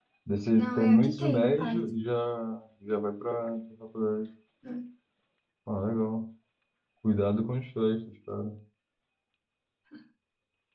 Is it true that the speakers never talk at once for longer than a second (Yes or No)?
No